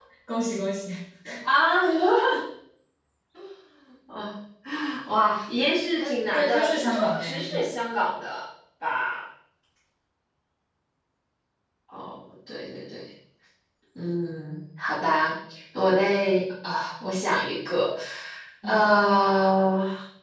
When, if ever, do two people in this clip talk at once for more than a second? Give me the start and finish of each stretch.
6.0-7.7

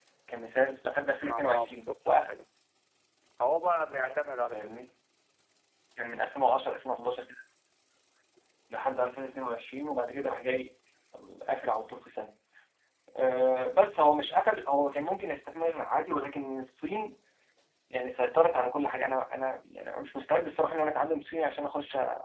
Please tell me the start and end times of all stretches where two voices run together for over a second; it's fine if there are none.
1.2-2.4

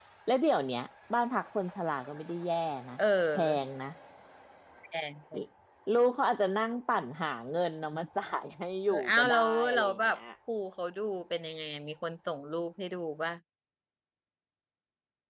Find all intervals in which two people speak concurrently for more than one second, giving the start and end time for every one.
8.9-10.2

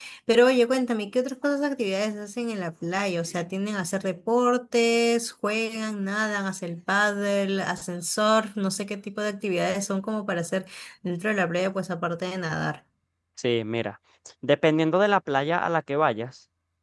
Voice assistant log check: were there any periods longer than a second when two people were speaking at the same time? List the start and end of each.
none

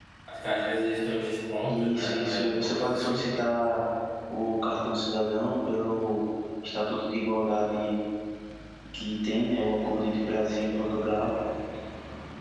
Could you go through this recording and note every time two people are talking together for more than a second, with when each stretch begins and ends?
1.7-3.2

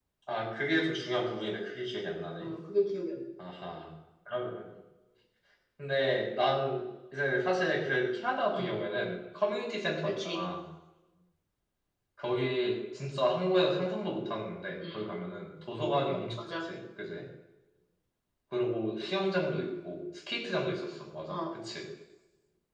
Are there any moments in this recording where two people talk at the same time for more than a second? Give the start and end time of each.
none

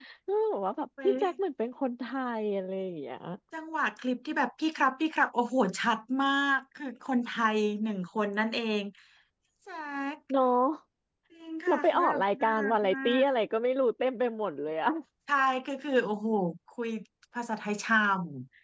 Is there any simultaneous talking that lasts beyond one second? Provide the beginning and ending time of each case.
11.7-13.2

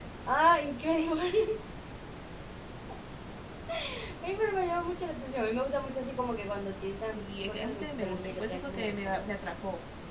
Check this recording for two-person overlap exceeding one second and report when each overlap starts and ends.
7.1-9.3

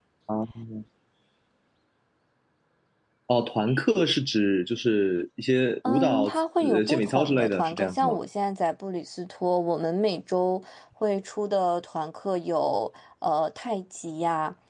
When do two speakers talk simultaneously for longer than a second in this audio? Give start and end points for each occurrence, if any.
5.9-8.2

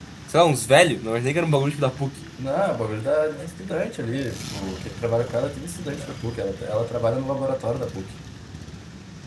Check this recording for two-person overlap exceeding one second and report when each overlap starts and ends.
none

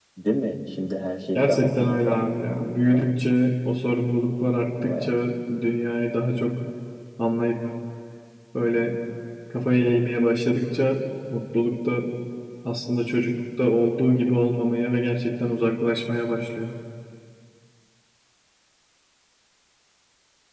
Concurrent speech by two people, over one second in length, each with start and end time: 1.3-3.1

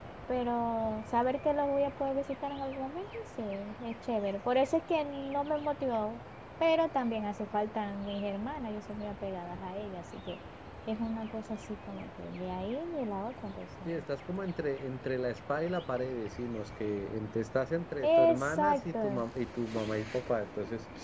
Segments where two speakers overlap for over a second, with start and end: 18.0-19.2

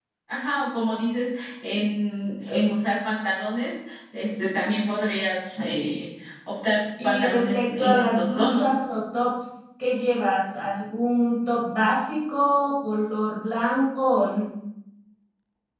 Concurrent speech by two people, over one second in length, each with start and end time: 7.0-8.7

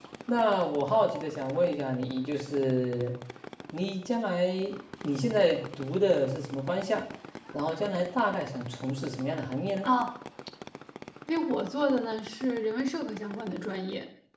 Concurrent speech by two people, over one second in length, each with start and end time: none

